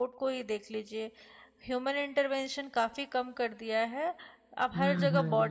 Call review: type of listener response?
listening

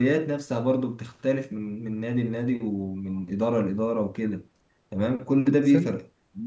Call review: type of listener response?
listening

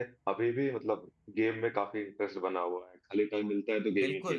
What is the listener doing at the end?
taking over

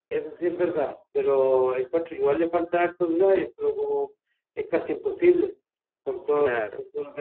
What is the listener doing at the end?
listening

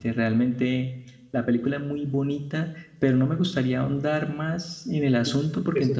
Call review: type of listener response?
taking over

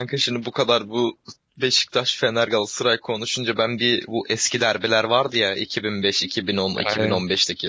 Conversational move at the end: listening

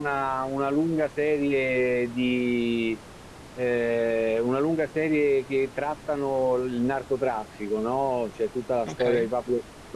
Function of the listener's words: listening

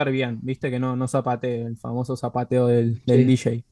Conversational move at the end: listening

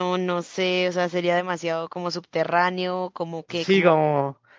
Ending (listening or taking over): taking over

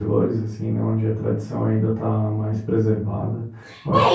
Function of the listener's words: taking over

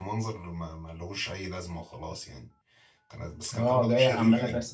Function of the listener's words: taking over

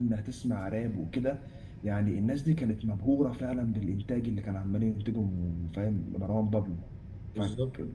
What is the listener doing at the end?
listening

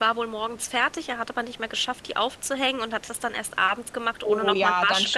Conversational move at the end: taking over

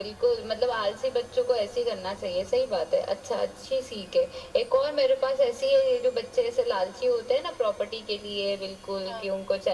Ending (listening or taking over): listening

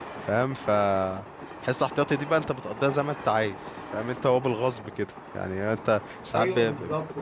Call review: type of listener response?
listening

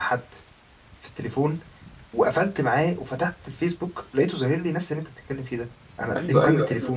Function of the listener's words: taking over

